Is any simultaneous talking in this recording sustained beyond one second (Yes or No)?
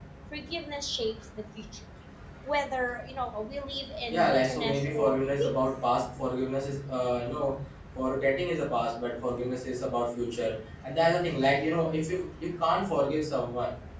Yes